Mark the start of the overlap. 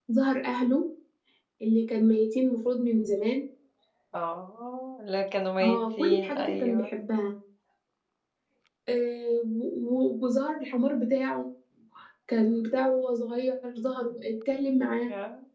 5.6 s

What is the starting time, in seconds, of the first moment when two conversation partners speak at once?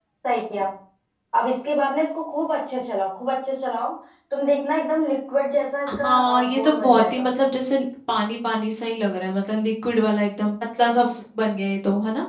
6.0 s

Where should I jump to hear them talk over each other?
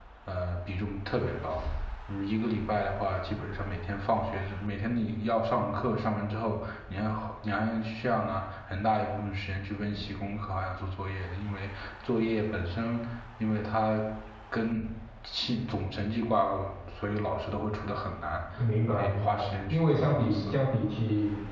18.9 s

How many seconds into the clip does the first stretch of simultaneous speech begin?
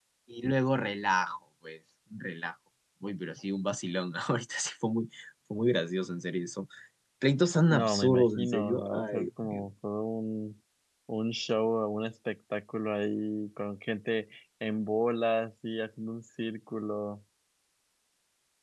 7.8 s

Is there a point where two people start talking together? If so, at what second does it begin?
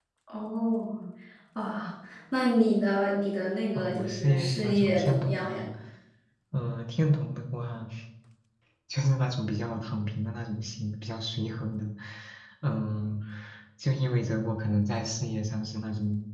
3.8 s

